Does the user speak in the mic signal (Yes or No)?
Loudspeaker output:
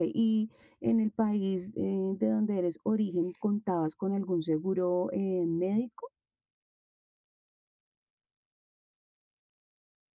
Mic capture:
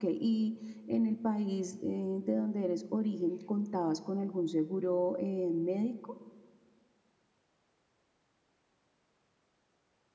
No